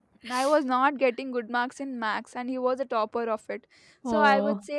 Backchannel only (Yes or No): Yes